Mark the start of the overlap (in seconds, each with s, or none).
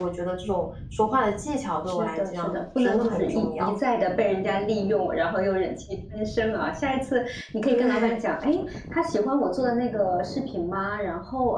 1.9 s